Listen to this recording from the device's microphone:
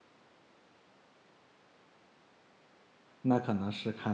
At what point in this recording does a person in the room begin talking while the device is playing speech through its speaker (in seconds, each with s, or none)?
3.2 s